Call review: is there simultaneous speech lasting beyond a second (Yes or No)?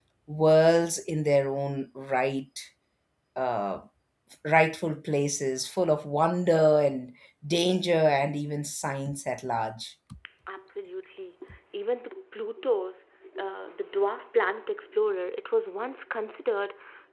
No